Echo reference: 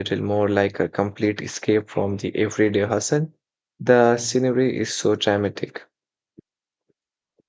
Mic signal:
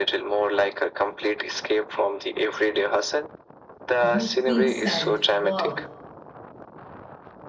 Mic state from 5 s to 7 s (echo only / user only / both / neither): both